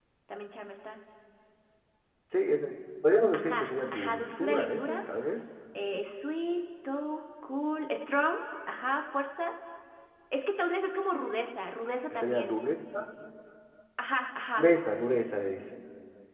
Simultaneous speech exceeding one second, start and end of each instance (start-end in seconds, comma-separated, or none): 3.3-5.0